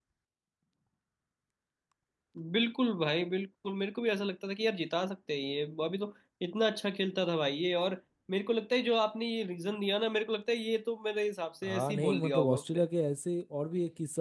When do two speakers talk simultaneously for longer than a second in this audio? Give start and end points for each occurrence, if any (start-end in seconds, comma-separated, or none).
11.6-12.8